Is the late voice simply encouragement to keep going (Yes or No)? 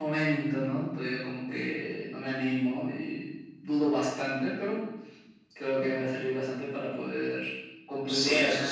No